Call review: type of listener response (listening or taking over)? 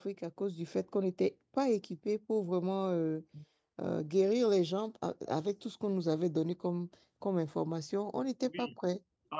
taking over